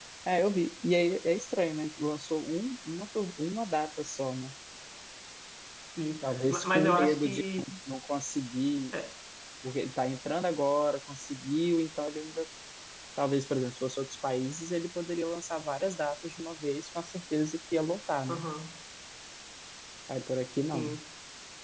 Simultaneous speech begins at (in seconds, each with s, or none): 6.2 s